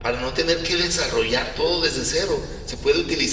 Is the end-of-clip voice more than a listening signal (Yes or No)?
No